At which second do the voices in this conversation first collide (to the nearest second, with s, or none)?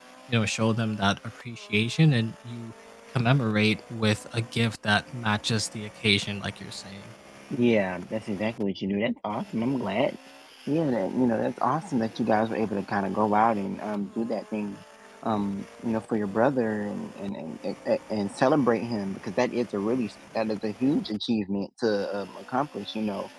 none